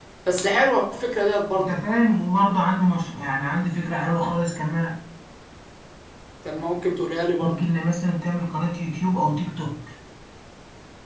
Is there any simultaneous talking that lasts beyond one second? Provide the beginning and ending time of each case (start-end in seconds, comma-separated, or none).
none